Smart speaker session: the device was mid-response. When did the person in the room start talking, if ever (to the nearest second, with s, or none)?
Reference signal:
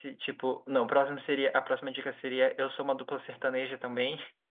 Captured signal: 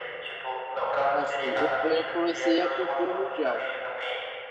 1 s